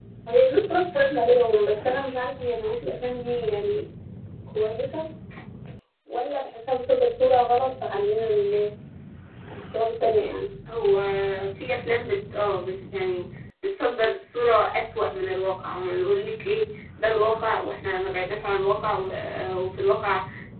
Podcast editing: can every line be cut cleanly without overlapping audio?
Yes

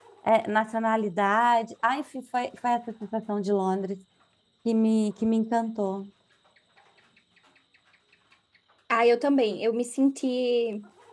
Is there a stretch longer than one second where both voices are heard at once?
No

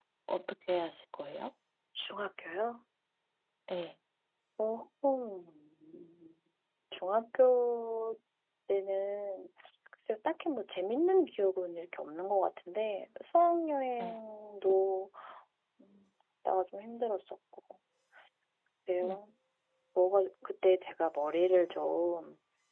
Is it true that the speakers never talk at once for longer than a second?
Yes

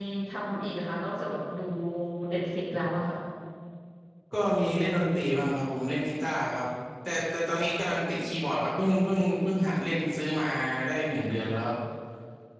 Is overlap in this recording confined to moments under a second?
Yes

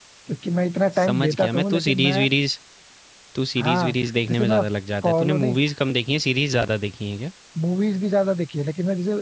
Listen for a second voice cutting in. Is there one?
Yes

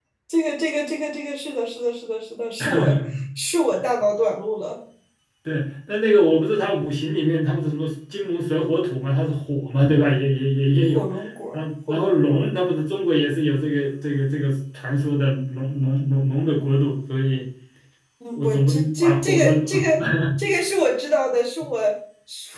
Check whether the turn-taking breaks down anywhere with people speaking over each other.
Yes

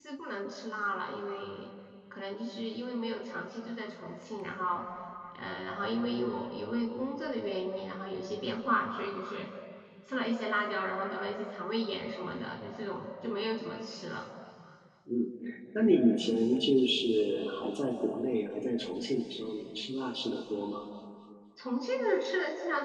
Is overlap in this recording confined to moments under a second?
Yes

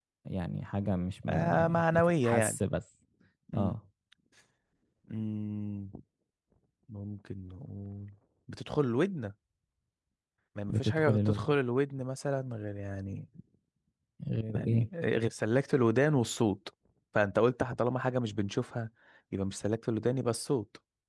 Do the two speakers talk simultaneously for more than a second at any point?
Yes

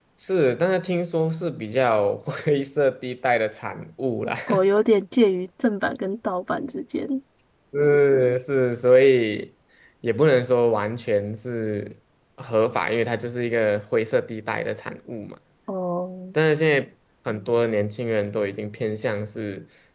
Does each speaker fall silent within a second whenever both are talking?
Yes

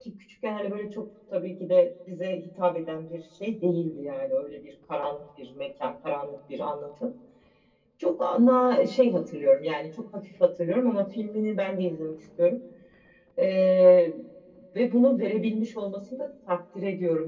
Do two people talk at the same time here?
No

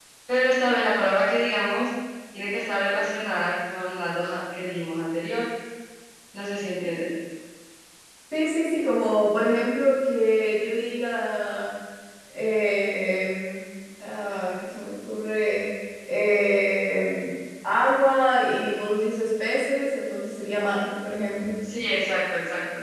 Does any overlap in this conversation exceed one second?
No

